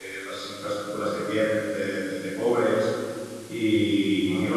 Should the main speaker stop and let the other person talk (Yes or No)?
No